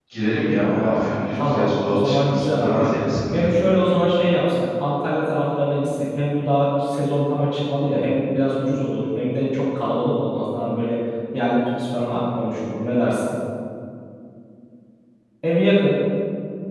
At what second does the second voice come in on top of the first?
0.6 s

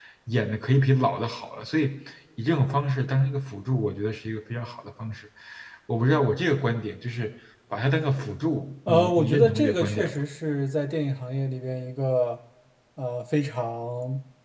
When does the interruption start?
8.9 s

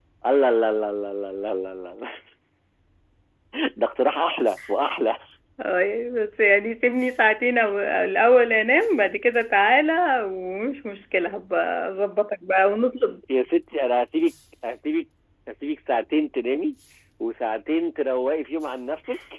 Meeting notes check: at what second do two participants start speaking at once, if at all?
none

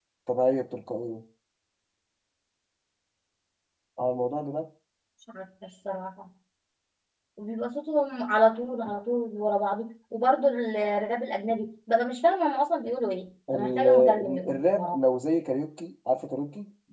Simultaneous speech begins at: 13.5 s

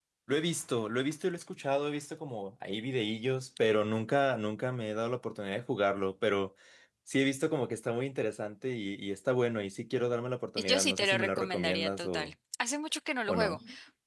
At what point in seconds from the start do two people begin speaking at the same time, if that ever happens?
10.6 s

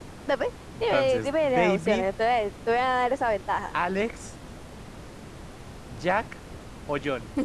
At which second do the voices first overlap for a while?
0.8 s

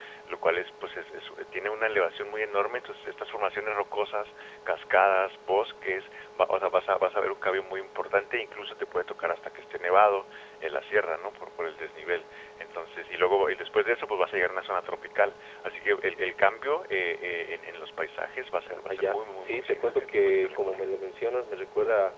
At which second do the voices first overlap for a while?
18.7 s

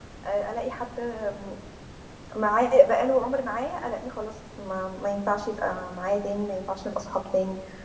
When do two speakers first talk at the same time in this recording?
none

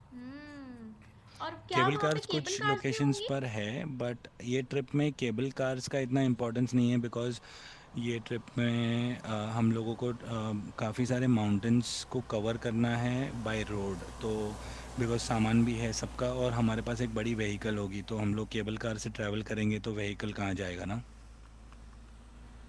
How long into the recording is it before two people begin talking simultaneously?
1.7 s

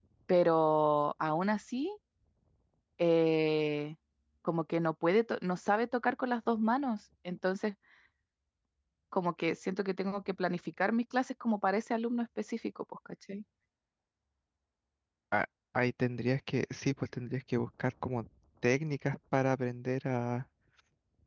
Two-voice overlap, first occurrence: none

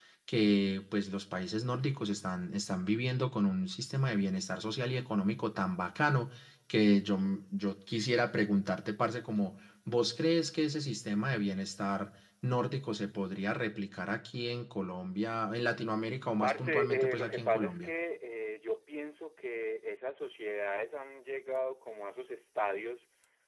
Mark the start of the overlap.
16.4 s

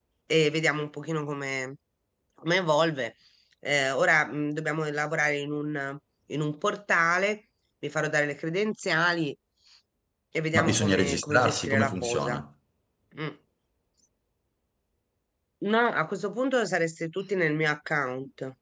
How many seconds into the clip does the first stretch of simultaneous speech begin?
10.6 s

